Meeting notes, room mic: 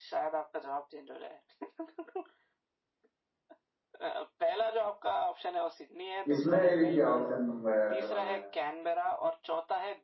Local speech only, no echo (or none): इसमें भी क्या ऑप्शन दूंगा यार तुम्हें